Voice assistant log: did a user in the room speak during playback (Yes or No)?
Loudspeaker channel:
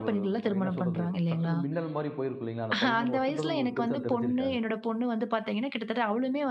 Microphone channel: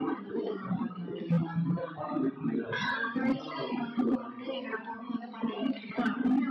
No